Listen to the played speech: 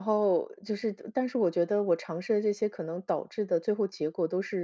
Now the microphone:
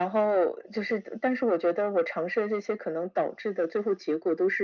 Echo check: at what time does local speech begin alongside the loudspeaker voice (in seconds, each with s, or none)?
none